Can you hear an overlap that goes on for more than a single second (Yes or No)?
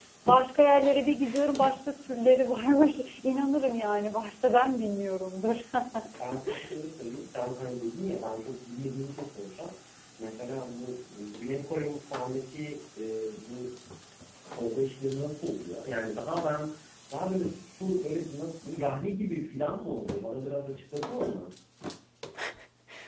No